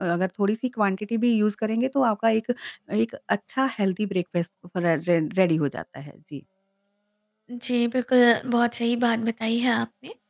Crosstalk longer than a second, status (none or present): none